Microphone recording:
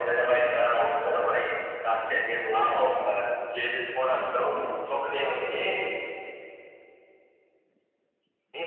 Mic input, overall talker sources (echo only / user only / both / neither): both